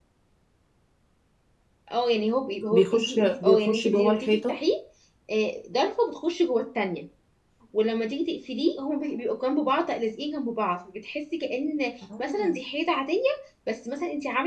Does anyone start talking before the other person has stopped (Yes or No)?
Yes